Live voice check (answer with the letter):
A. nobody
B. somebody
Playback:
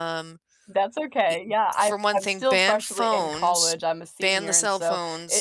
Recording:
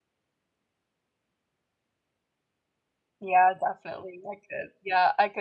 B